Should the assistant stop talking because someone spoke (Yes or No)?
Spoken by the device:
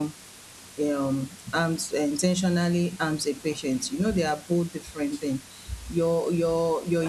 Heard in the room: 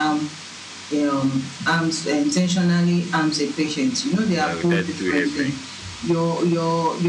Yes